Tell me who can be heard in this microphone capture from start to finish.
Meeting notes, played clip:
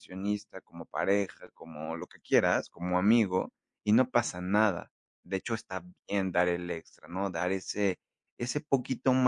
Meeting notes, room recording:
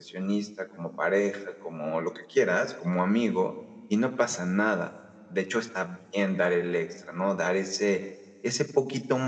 echo only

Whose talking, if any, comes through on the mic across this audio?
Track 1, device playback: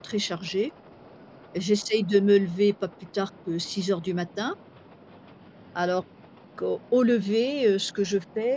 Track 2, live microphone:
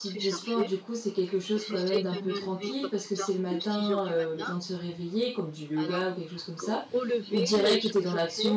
both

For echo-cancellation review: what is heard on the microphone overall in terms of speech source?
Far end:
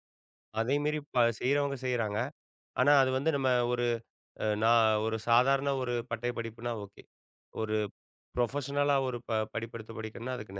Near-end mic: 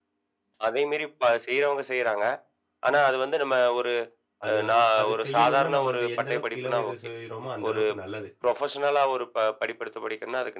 both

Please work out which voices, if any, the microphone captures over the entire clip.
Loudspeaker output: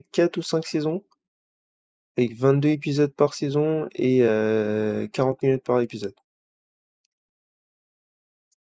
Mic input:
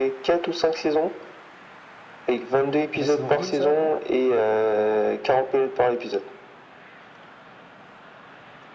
both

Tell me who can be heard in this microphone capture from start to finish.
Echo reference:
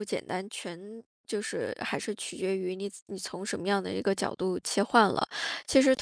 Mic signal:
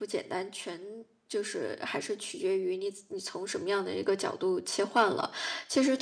echo only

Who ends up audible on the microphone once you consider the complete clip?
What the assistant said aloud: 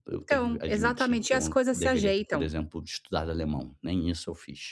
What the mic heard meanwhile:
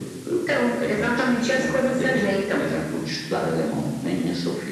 both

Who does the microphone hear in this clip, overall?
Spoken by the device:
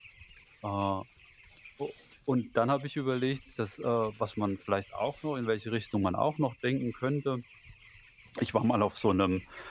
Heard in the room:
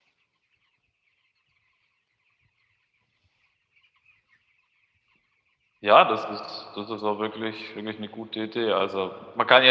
user only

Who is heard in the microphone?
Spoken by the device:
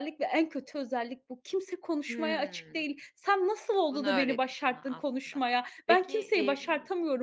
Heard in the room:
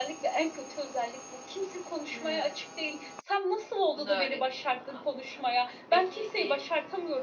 echo only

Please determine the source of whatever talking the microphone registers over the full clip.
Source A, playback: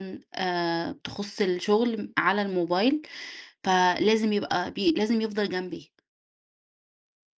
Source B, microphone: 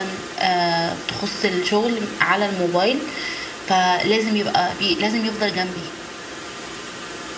echo only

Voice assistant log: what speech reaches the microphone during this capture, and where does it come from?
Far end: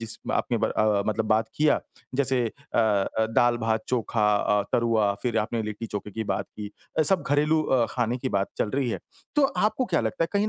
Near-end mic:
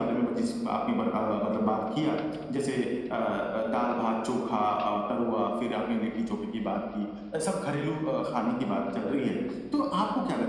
echo only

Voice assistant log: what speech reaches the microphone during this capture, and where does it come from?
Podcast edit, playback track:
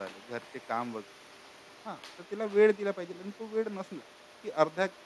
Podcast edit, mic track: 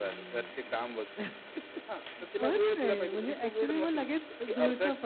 both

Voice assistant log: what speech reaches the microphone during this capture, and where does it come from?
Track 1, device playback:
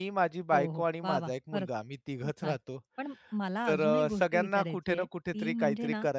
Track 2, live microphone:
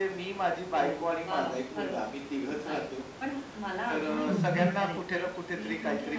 both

